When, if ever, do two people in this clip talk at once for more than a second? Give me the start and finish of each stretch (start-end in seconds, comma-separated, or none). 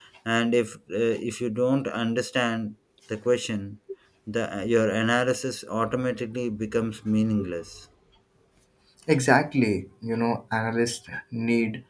none